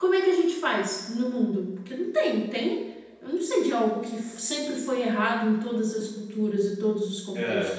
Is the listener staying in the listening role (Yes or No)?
No